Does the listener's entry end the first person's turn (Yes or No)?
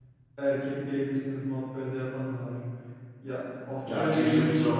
Yes